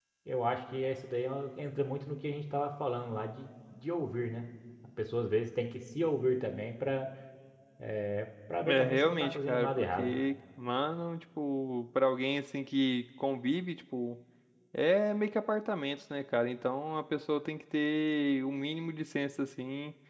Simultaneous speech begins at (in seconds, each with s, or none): 8.6 s